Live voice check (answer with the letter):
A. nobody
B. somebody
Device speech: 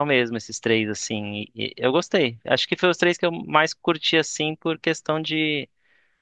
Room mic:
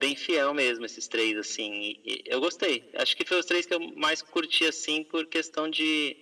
A